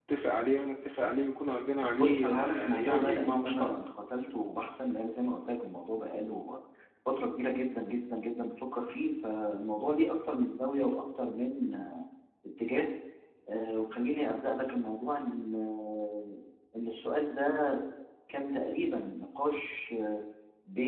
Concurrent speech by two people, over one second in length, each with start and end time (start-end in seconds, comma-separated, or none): 2.0-3.7